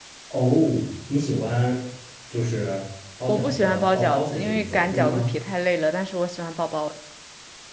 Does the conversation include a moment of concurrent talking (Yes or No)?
Yes